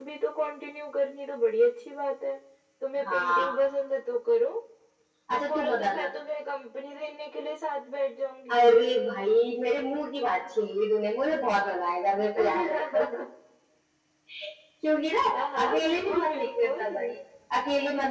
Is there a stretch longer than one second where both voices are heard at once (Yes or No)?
Yes